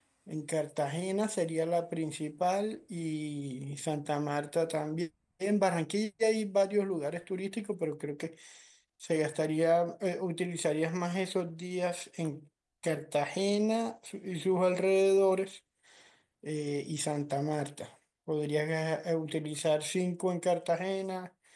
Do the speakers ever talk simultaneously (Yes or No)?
No